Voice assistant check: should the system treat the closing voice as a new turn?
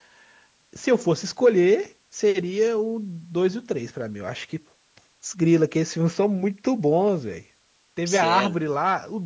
No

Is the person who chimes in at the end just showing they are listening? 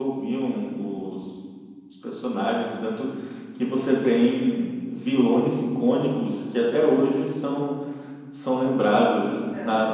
Yes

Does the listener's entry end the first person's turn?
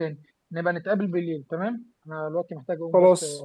No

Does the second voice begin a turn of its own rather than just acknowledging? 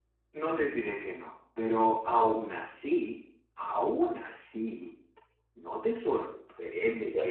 No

